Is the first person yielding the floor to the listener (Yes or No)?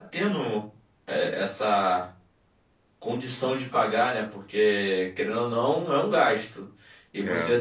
No